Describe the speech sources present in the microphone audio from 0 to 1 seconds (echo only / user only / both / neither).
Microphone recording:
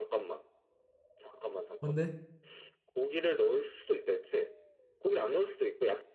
echo only